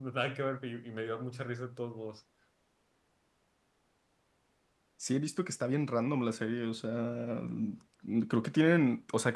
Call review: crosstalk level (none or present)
none